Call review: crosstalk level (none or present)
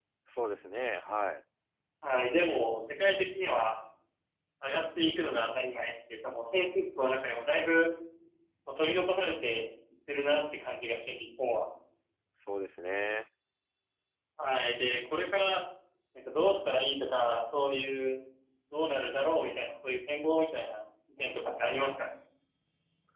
none